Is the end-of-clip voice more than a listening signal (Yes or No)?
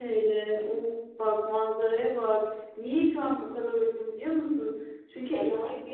No